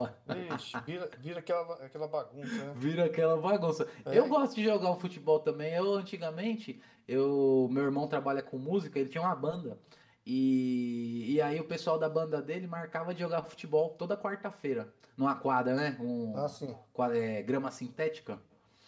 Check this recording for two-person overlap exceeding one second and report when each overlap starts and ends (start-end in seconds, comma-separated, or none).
none